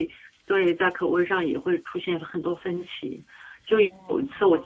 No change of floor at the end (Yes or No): Yes